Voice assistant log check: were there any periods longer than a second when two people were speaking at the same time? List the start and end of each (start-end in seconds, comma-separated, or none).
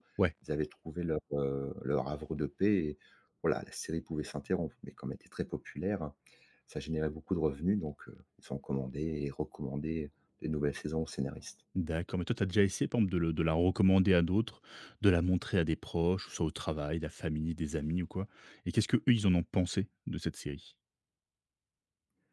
none